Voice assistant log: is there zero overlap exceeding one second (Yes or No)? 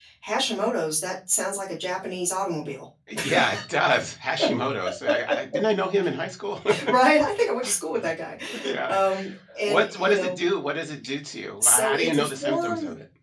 No